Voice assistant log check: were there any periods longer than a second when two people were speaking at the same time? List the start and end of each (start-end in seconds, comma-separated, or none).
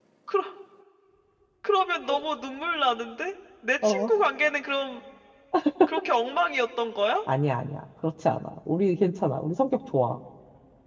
none